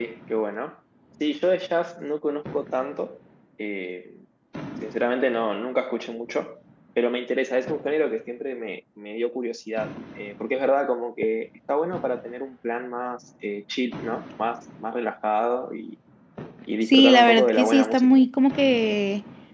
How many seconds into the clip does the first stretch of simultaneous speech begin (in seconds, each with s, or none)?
16.9 s